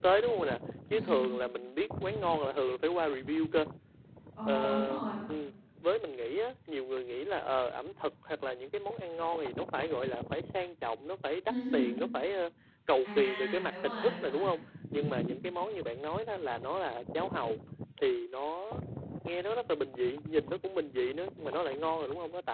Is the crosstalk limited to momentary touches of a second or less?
No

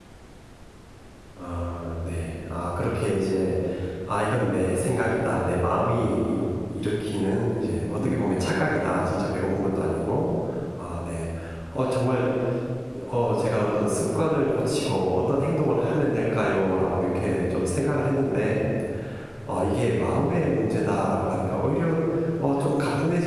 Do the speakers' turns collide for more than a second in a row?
No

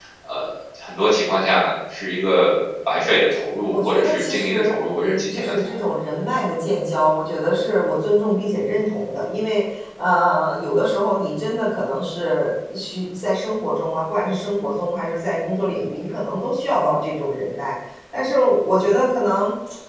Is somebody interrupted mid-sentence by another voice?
Yes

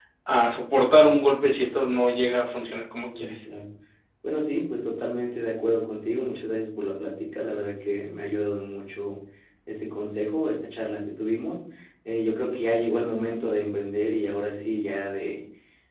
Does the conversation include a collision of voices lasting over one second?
No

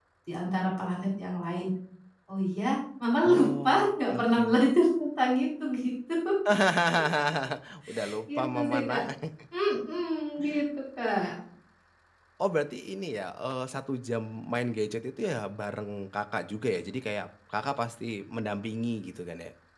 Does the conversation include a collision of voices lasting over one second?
Yes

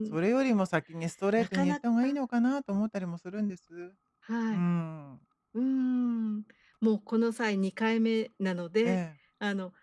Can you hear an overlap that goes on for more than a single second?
No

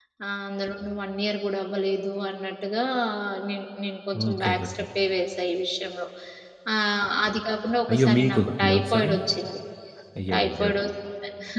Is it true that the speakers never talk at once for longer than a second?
No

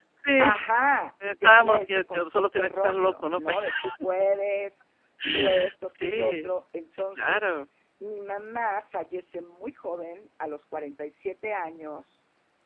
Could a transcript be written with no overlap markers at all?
No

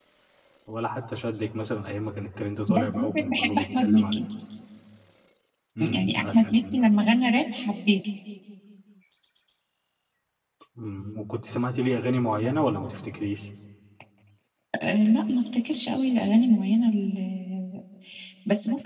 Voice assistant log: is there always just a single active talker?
No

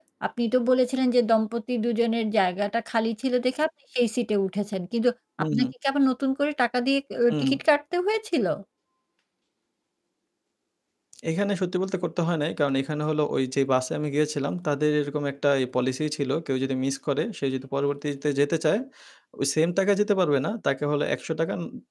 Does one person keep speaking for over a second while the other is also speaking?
No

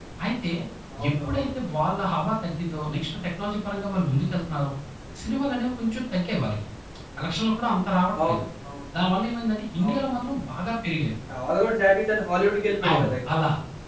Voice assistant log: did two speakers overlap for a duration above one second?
No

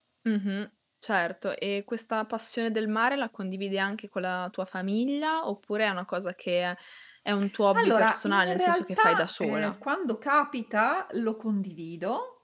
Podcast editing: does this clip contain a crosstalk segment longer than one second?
Yes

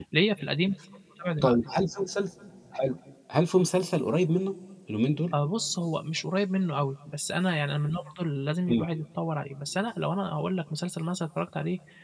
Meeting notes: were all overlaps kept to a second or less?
Yes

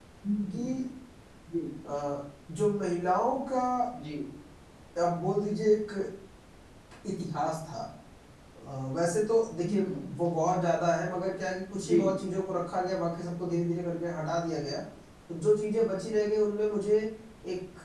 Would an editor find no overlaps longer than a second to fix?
Yes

